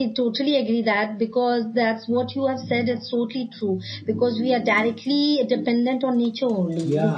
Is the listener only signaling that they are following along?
Yes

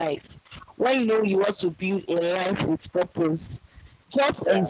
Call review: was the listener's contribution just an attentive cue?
Yes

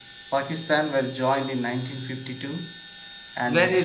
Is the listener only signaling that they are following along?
No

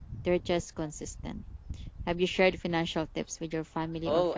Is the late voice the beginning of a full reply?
Yes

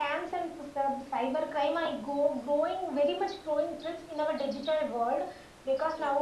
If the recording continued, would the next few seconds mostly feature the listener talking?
No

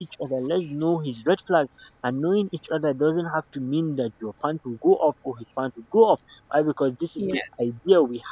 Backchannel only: Yes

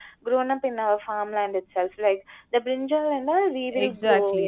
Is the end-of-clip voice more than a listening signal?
Yes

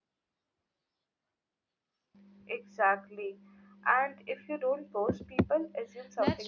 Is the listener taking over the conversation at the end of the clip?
Yes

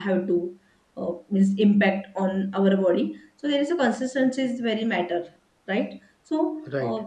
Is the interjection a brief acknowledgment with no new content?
No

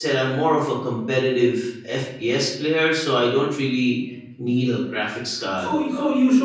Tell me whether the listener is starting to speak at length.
Yes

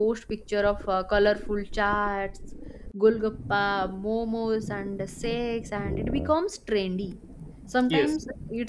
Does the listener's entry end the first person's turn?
No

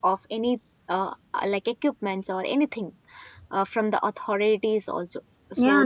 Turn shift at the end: Yes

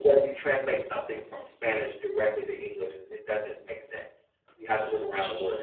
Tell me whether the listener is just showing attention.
No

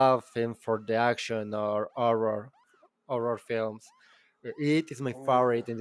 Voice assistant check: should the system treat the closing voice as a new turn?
No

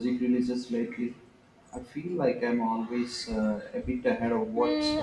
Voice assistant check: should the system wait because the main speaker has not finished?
No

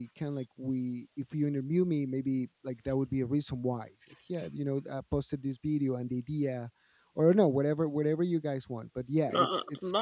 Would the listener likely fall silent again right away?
No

